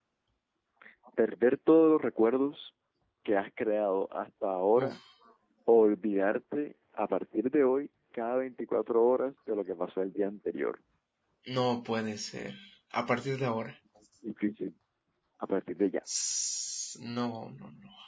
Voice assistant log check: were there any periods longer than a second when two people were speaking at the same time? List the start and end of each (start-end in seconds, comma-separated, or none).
none